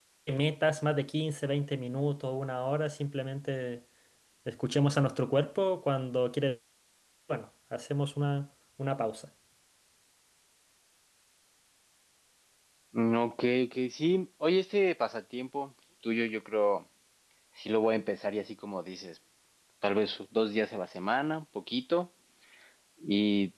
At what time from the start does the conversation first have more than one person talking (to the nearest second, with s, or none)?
none